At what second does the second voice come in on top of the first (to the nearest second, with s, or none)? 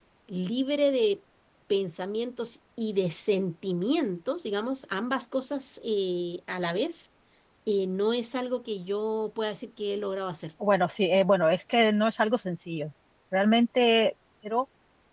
none